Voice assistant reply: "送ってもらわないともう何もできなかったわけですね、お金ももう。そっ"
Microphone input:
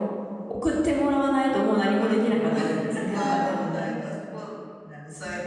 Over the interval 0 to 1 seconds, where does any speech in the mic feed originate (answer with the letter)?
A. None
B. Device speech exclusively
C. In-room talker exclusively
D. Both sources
B